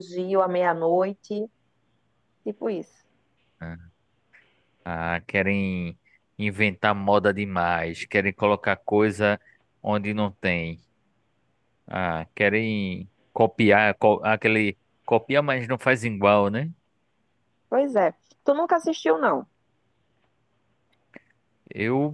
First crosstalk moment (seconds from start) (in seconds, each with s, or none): none